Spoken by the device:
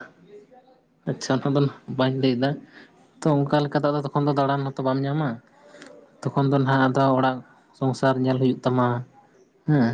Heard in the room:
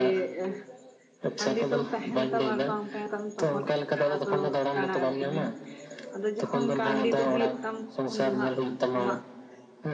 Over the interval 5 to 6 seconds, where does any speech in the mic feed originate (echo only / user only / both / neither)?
both